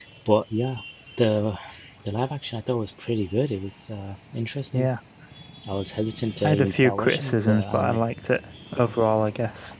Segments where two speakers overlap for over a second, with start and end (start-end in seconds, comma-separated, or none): 6.5-8.0